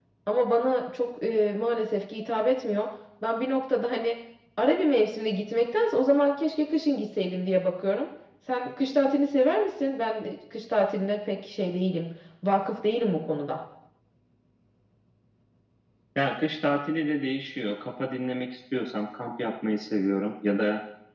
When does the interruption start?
none

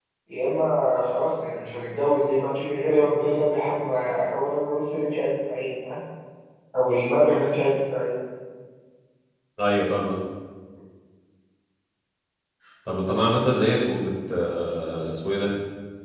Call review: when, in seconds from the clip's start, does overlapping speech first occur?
none

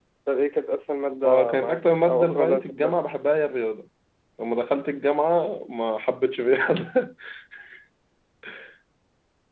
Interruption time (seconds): 1.2 s

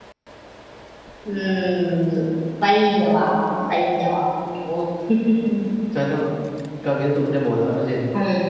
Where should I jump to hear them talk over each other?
none

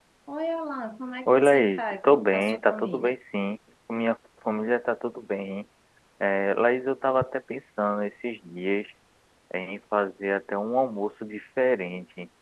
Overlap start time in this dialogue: 1.3 s

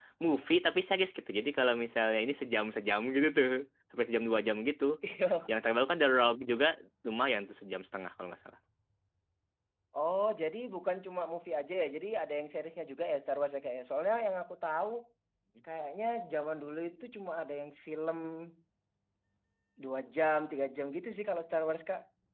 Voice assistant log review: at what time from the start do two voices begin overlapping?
none

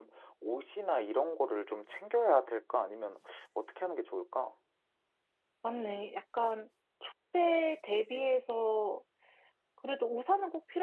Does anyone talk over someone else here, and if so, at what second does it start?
none

